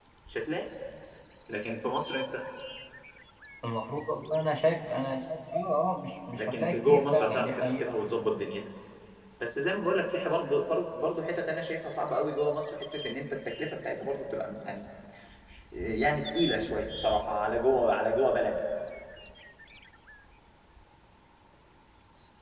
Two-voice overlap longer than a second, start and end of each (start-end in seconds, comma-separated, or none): 6.3-7.8